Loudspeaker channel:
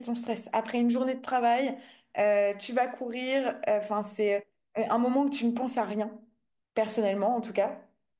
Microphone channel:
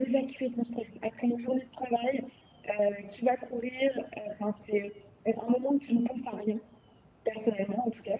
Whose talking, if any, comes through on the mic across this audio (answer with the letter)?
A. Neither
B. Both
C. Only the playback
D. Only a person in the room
C